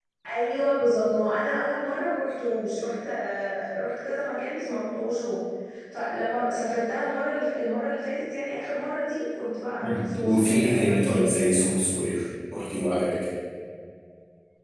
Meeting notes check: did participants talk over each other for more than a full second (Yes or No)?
Yes